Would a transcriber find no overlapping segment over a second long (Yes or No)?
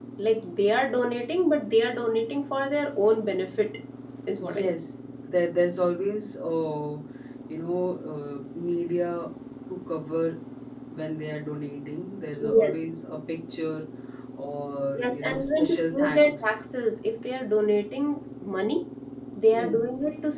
No